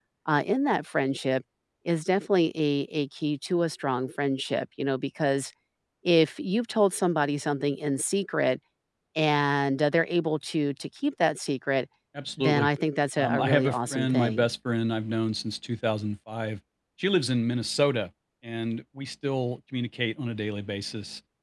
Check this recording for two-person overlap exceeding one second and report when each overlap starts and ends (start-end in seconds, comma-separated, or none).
13.2-14.5